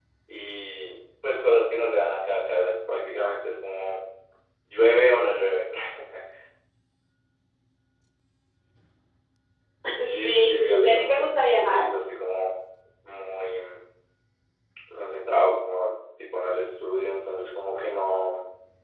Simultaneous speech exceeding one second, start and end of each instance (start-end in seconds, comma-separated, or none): 10.1-11.9